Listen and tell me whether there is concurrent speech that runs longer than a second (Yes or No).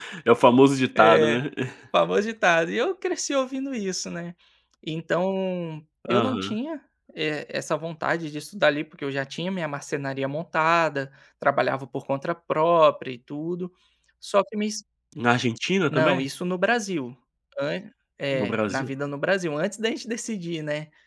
No